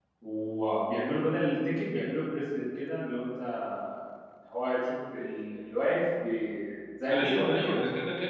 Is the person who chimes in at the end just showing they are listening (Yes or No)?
No